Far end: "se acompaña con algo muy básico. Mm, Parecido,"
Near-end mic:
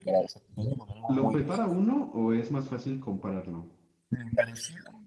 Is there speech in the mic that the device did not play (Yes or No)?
Yes